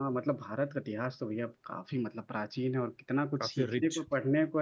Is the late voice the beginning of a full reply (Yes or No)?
No